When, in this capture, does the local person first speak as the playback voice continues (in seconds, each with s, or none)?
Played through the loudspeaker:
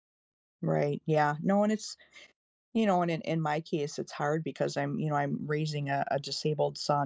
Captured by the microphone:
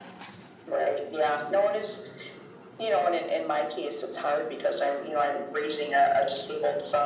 none